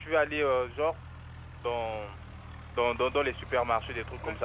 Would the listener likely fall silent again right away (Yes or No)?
Yes